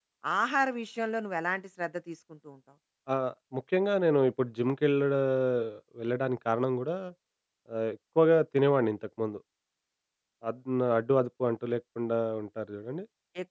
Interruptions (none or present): none